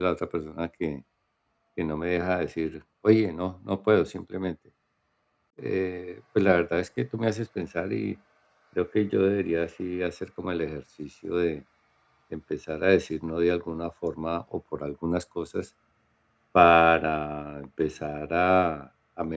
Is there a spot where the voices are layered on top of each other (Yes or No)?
No